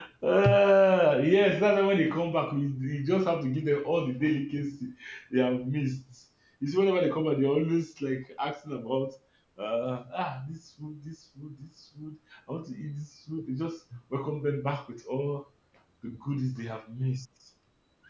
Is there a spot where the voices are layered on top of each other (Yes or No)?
No